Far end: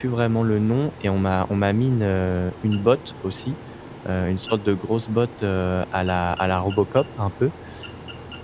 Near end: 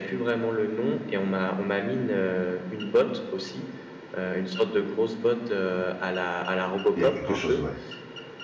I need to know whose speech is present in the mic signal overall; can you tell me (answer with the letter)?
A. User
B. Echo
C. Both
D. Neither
C